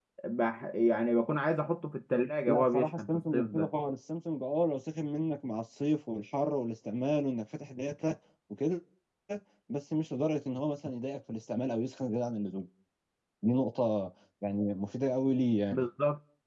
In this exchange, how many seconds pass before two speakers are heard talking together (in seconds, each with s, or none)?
2.5 s